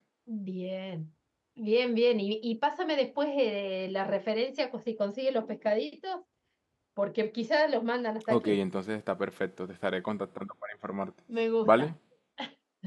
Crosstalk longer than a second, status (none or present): none